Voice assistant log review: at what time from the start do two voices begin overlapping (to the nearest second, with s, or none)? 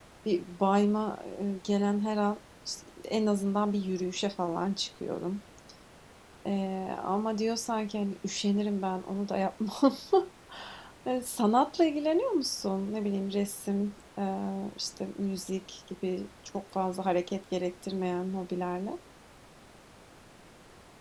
none